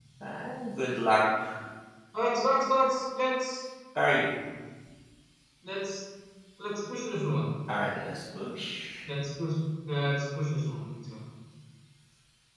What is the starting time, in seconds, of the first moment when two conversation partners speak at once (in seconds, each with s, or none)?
none